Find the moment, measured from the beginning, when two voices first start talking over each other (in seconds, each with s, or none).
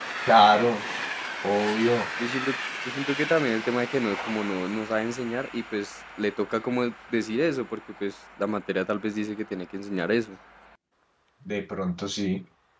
none